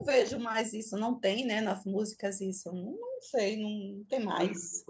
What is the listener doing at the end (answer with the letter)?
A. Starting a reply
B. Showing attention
A